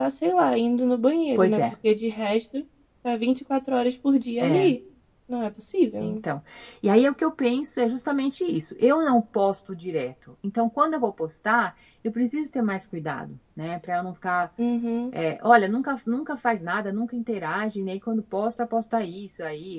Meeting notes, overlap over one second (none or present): none